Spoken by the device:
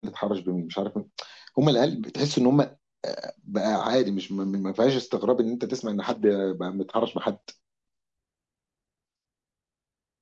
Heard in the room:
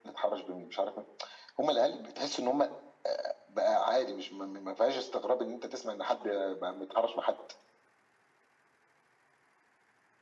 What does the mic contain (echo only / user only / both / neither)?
echo only